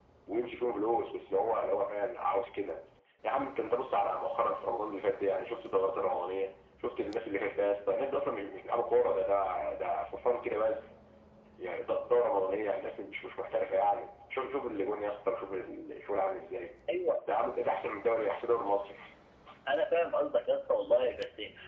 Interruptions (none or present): none